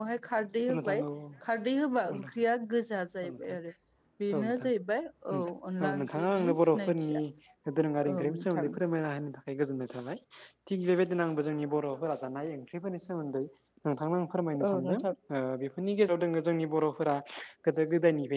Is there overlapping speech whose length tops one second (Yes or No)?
Yes